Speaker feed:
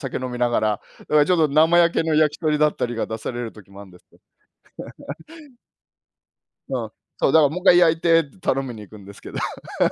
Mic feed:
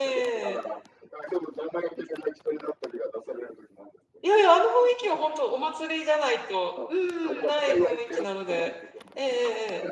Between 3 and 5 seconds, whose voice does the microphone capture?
both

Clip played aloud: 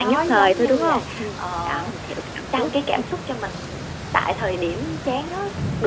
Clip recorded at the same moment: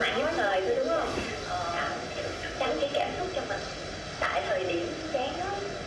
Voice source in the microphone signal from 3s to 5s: echo only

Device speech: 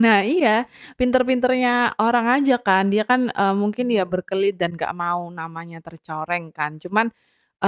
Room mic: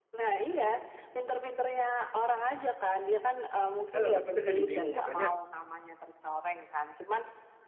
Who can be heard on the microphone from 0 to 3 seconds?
echo only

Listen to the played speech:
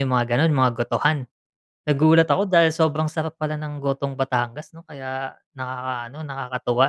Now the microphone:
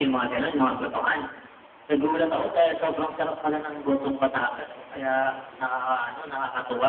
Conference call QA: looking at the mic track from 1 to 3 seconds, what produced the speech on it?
echo only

